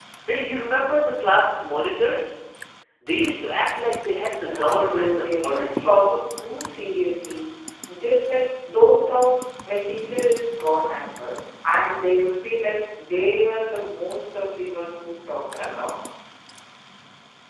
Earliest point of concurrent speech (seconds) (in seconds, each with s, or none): 4.4 s